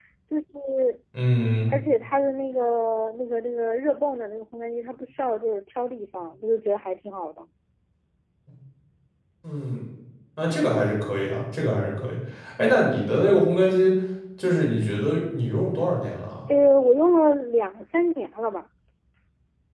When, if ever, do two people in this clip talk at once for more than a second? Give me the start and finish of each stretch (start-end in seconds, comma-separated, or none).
none